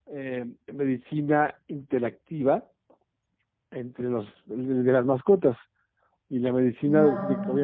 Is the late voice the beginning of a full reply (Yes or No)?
No